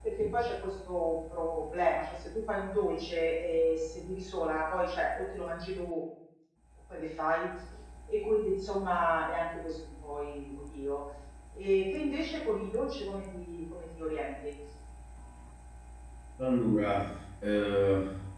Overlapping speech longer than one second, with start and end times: none

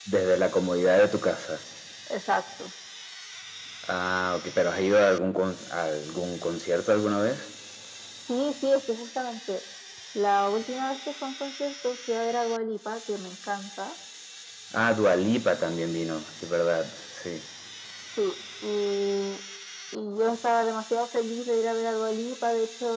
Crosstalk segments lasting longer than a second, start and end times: none

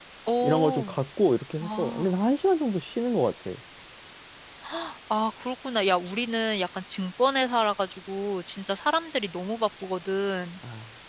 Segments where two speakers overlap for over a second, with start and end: none

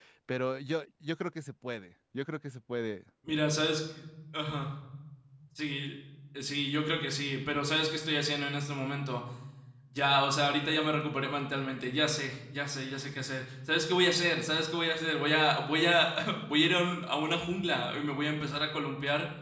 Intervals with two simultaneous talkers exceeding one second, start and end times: none

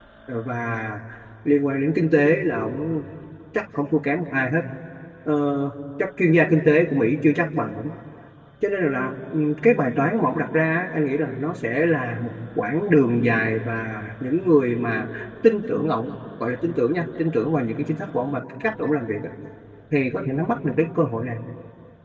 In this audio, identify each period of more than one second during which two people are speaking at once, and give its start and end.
none

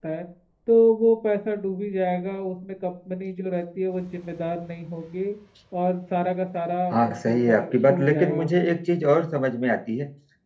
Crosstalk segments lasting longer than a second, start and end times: 6.9-8.5

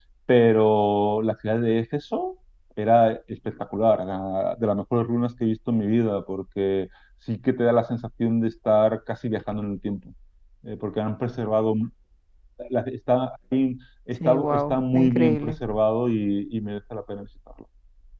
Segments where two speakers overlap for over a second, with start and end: 14.3-15.5

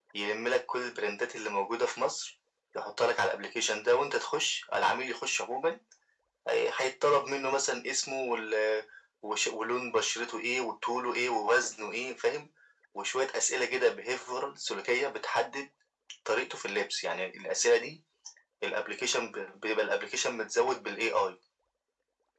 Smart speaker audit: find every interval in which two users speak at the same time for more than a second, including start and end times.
none

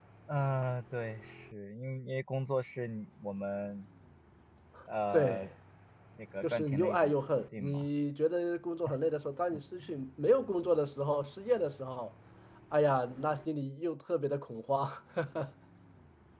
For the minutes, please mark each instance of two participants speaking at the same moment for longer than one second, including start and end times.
6.4-7.9

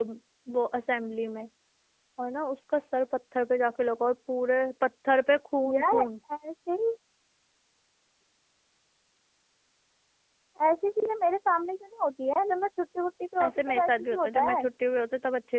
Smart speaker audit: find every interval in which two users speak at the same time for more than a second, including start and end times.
13.4-14.6

